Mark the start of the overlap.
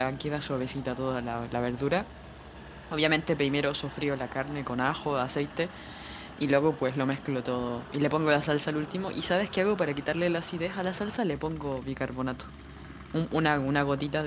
none

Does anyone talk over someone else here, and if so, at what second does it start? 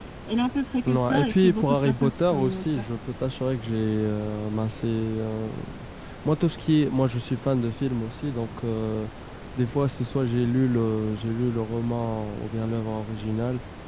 0.9 s

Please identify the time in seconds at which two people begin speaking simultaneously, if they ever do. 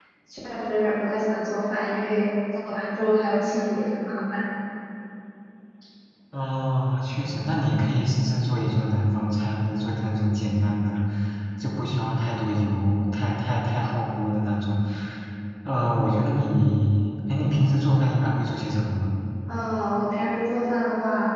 none

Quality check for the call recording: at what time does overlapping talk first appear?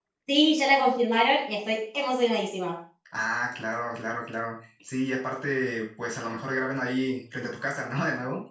none

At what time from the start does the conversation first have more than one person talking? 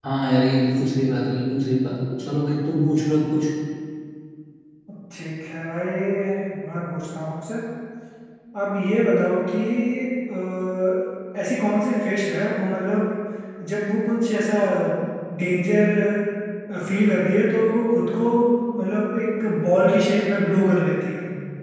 none

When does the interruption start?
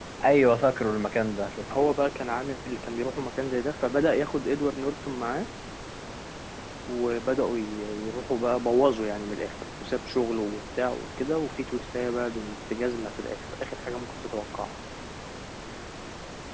none

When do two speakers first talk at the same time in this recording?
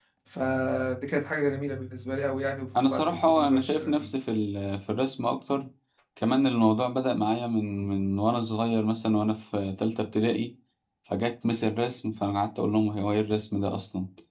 2.8 s

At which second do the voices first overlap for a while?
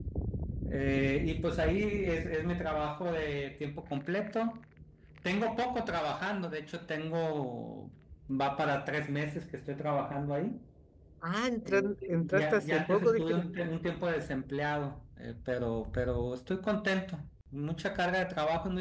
11.6 s

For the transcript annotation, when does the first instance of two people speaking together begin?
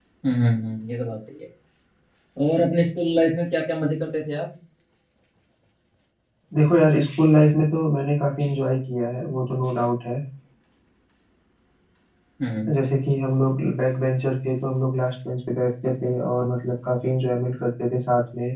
none

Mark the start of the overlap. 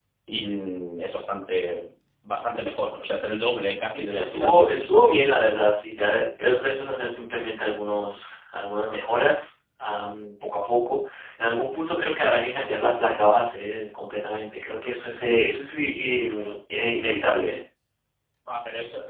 3.9 s

